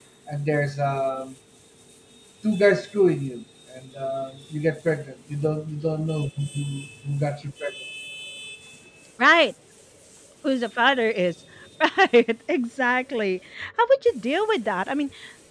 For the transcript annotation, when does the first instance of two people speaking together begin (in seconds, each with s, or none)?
none